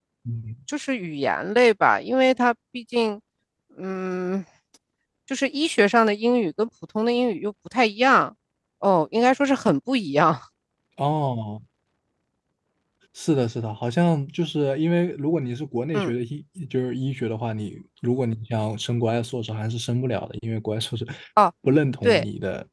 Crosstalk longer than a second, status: none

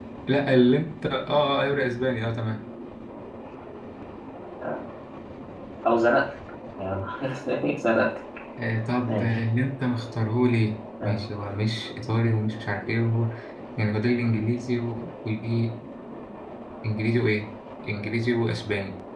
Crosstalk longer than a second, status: none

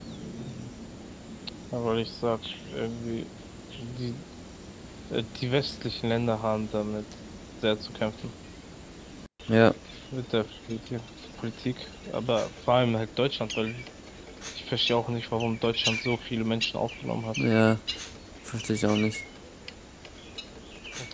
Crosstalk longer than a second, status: none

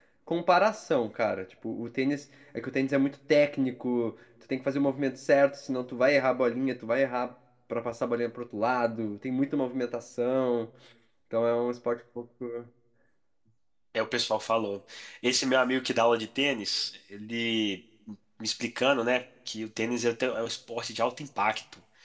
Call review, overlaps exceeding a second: none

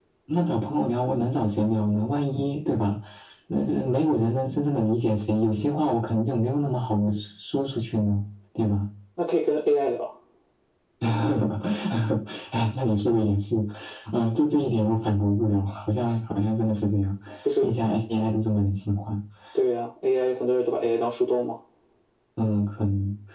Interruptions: none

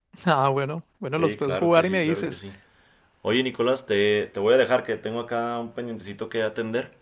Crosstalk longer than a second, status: present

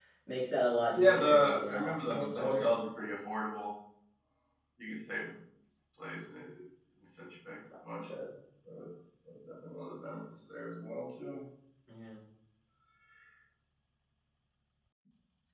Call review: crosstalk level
present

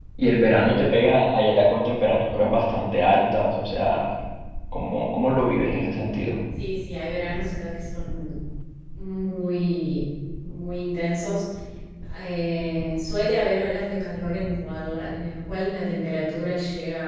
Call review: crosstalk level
none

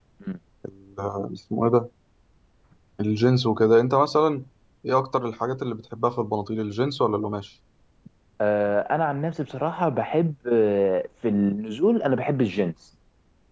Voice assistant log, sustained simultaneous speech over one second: none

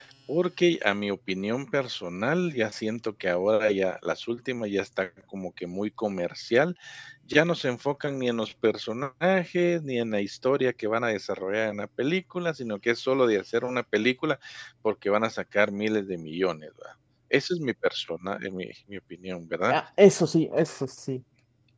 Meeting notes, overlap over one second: none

